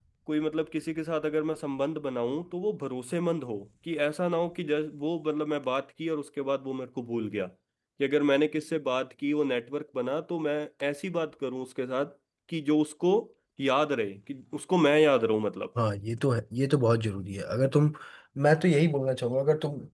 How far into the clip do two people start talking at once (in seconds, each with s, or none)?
none